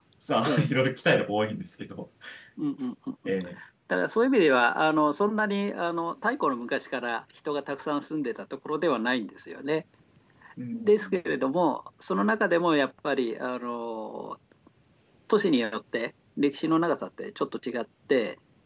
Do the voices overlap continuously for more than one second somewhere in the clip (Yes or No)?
No